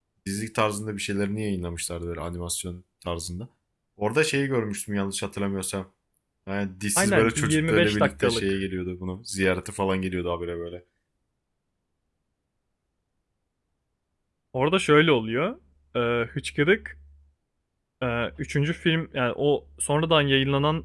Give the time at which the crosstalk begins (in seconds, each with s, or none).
7.0 s